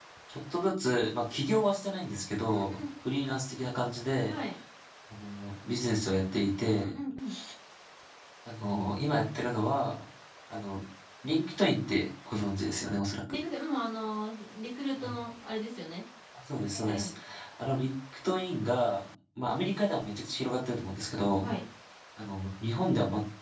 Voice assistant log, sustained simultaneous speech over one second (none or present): none